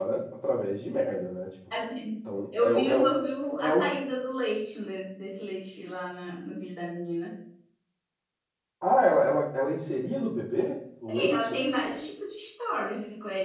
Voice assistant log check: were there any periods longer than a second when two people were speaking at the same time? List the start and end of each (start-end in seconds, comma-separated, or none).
none